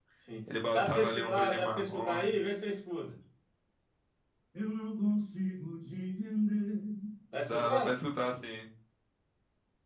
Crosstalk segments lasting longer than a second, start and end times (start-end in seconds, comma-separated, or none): 0.7-2.3